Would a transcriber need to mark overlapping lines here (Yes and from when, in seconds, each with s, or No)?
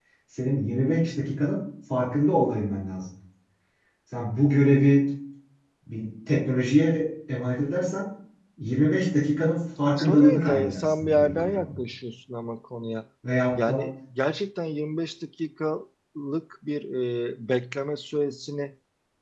Yes, from 10.0 s